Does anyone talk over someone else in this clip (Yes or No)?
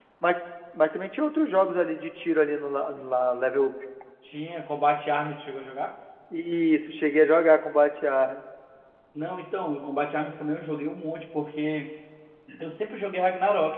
No